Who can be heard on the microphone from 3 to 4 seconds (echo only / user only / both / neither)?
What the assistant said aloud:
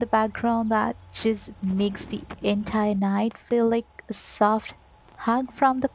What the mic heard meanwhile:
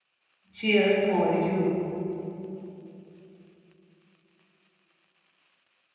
neither